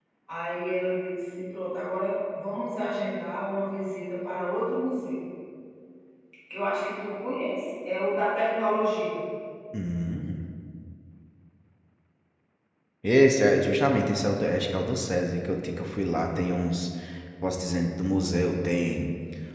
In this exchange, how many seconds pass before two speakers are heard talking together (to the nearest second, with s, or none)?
none